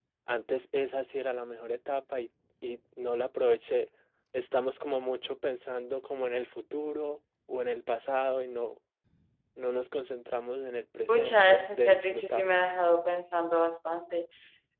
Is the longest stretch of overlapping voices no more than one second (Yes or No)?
No